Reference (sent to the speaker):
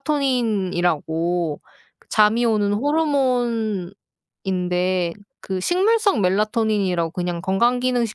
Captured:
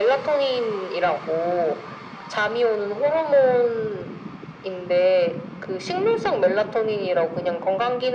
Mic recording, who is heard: echo only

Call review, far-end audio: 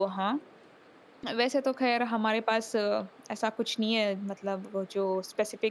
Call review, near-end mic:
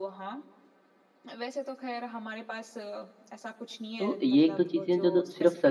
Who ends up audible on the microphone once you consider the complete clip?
both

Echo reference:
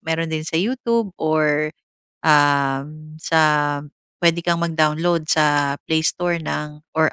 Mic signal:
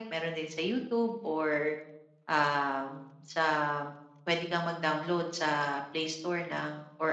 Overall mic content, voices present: echo only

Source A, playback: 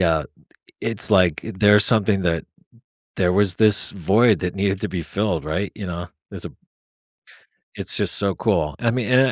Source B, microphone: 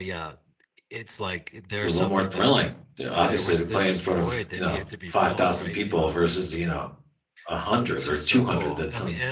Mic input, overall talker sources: both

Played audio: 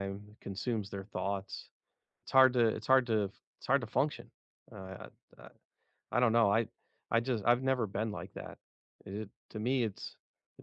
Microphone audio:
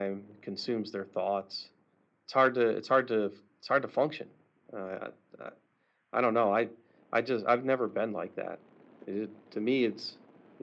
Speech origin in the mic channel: echo only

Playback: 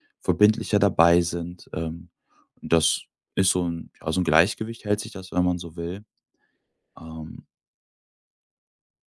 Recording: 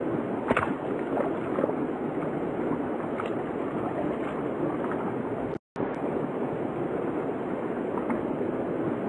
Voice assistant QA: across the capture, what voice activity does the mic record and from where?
neither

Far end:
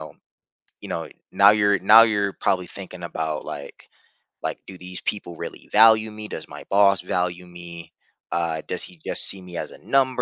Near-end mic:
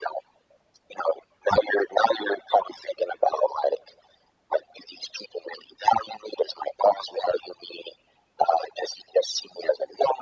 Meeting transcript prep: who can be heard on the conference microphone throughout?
echo only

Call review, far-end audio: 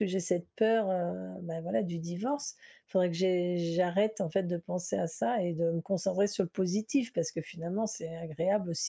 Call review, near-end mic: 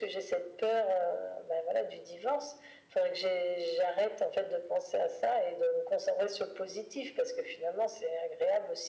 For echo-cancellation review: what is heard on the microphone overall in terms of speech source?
echo only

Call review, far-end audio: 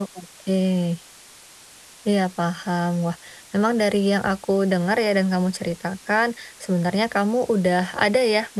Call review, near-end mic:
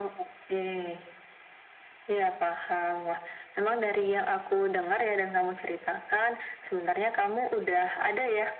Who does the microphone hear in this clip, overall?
echo only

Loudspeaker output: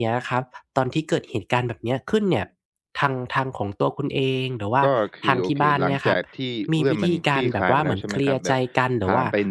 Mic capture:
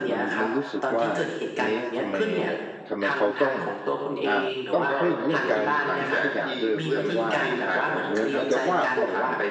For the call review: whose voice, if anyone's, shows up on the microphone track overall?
both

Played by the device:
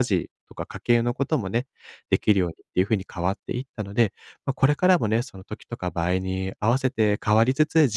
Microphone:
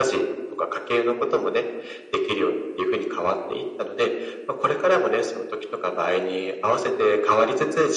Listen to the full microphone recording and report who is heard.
echo only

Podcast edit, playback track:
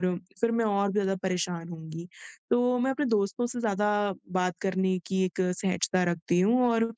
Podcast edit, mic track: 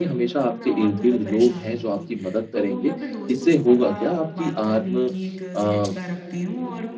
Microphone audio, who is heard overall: both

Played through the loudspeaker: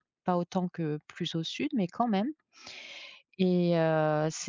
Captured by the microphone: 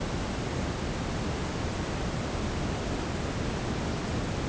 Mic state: neither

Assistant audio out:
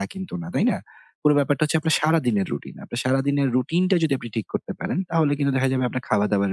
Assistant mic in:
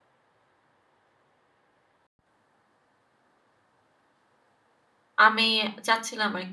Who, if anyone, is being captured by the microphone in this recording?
user only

